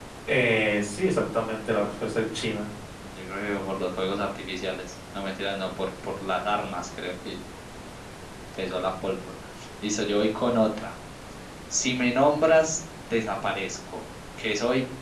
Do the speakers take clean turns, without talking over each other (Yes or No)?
Yes